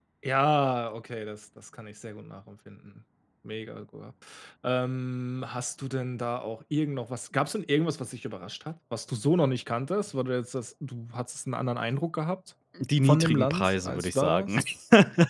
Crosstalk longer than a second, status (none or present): present